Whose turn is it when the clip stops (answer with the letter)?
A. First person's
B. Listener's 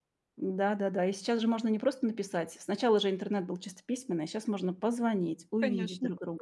B